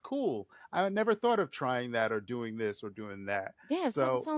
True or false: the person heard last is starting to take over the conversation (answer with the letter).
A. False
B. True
B